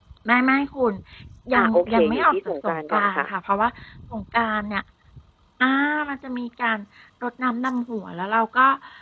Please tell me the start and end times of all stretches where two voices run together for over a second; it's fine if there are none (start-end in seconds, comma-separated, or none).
1.6-3.3